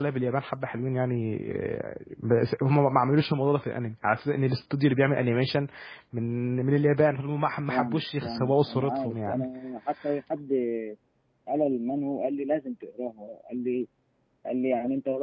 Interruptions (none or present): present